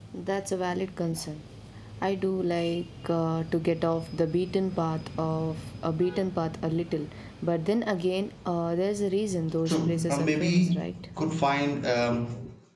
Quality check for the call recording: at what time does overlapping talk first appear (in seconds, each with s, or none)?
9.7 s